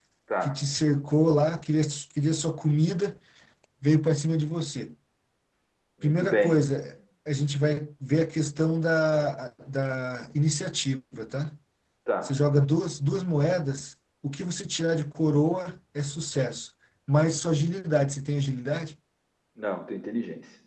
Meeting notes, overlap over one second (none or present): none